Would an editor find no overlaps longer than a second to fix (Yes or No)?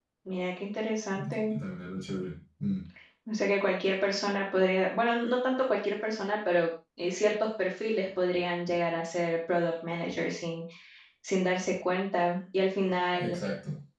Yes